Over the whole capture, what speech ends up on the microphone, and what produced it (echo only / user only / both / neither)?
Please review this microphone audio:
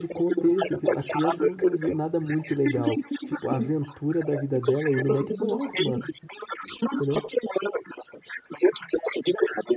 both